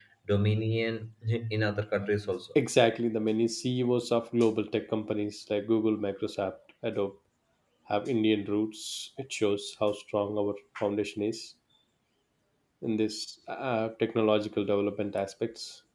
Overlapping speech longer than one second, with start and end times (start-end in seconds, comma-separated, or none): none